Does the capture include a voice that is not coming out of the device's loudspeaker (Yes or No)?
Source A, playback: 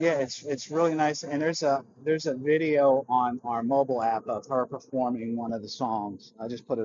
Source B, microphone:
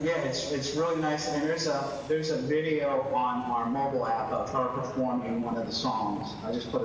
No